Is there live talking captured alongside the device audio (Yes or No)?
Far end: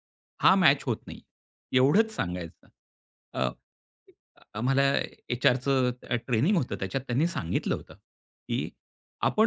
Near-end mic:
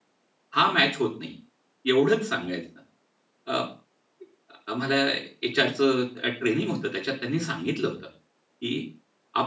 No